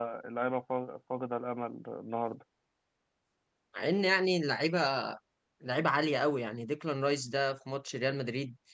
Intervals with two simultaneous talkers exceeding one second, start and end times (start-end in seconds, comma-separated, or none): none